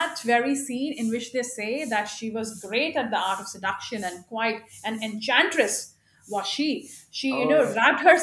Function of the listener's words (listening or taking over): listening